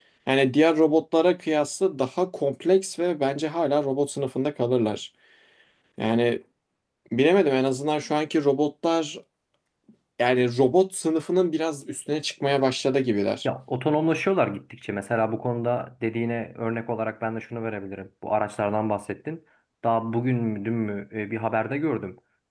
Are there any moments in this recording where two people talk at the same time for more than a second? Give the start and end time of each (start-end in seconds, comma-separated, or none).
none